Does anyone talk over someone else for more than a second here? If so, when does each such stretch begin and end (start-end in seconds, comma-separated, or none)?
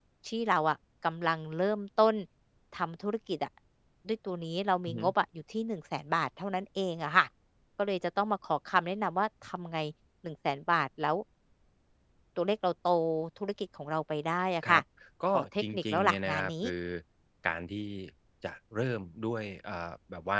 15.3-16.6